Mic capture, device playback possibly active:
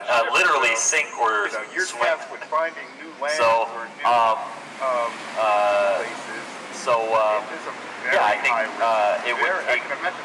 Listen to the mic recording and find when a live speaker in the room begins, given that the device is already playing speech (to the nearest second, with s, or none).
none